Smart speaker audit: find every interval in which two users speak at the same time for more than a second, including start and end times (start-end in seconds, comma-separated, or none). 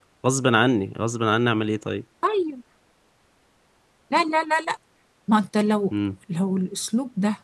none